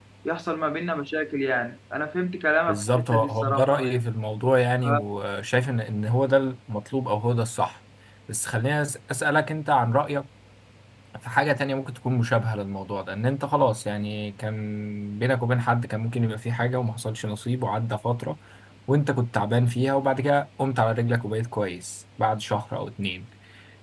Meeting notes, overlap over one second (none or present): present